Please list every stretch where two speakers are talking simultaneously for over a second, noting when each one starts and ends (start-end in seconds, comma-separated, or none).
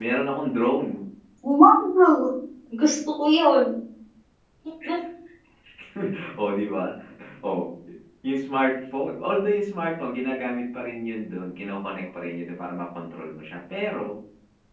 none